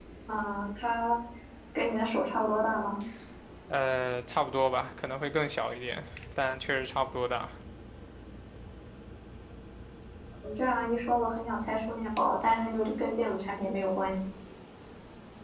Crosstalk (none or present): none